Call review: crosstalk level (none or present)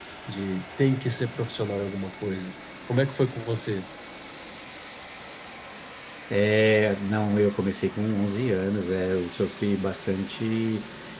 none